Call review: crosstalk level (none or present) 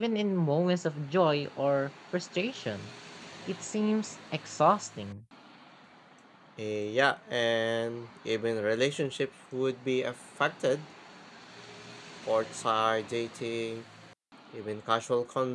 none